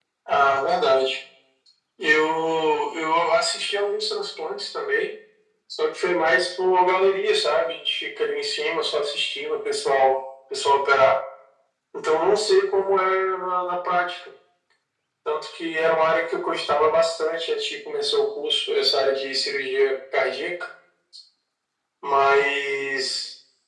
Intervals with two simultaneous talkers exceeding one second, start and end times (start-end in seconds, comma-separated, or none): none